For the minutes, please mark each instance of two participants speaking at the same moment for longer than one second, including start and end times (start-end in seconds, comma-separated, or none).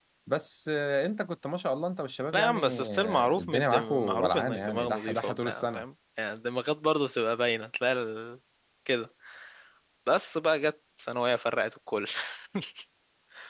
2.3-5.8